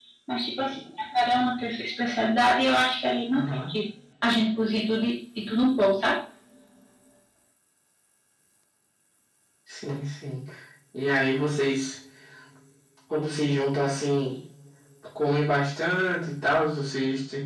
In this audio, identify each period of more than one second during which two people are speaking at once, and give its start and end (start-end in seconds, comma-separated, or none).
none